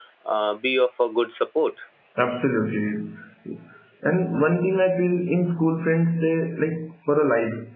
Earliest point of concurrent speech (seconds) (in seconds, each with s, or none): none